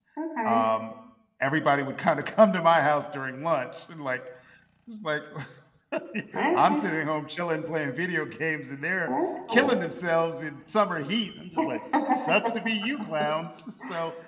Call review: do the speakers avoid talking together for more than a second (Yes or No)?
Yes